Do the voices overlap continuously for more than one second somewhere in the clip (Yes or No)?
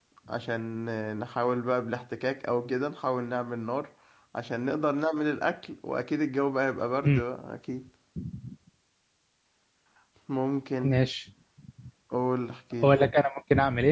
No